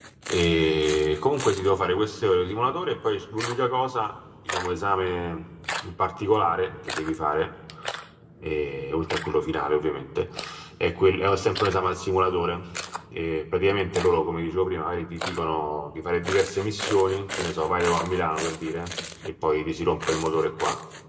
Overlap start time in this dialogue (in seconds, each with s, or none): none